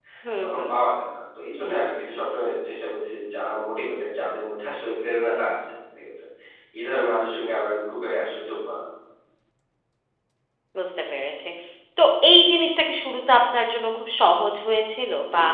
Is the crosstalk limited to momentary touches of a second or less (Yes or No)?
Yes